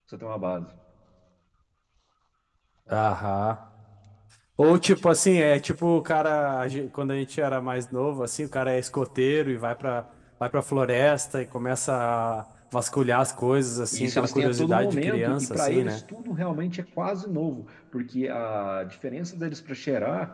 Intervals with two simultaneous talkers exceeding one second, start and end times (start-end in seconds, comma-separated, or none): 13.9-16.0